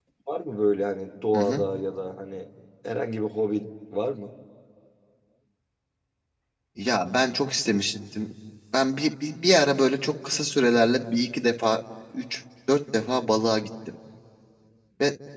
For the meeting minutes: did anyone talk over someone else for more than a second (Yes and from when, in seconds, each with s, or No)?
No